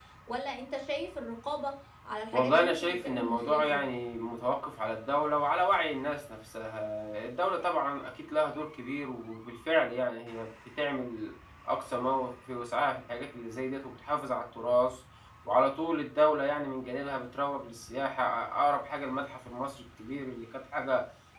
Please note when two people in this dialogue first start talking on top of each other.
2 s

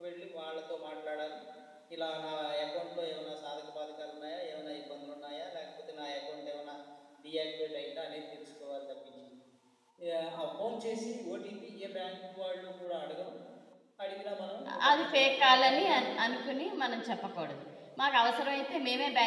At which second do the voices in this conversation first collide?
15 s

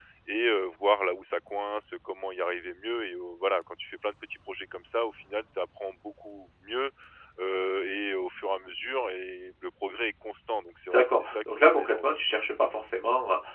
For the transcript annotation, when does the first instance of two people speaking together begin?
11 s

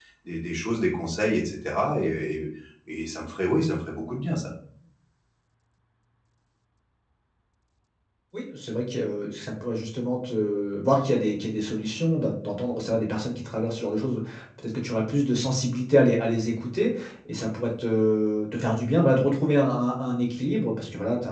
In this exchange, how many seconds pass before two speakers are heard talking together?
none

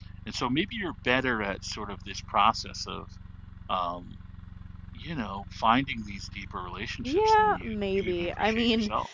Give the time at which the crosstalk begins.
7 s

